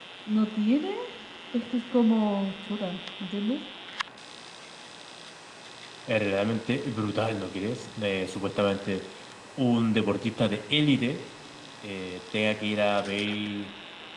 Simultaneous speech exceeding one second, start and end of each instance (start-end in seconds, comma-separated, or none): none